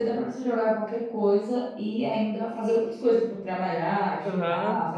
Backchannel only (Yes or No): No